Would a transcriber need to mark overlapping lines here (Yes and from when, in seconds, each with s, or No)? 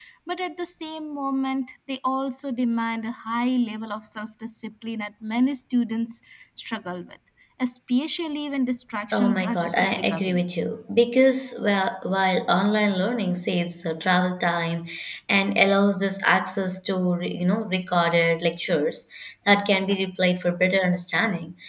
Yes, from 9.1 s